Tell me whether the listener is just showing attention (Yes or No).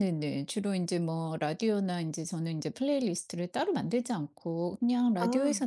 Yes